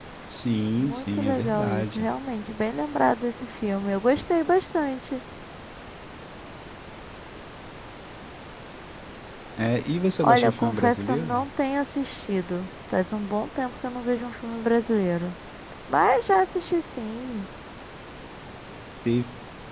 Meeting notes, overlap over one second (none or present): present